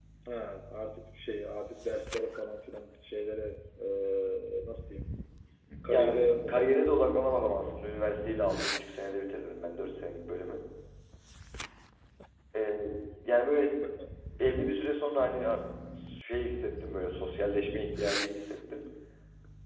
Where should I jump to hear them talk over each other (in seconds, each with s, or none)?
5.9 s